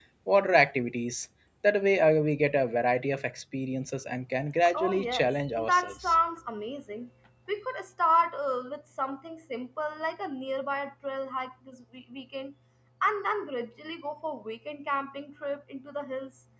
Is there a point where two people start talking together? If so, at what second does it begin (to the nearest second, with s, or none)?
5 s